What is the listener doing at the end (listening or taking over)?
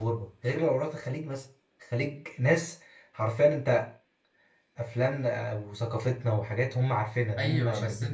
taking over